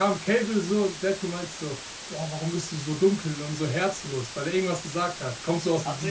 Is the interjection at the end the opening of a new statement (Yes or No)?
Yes